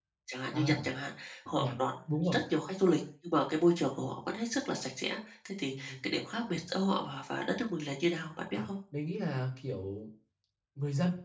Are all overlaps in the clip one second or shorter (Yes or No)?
Yes